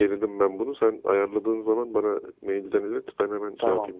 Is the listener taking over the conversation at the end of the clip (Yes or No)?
Yes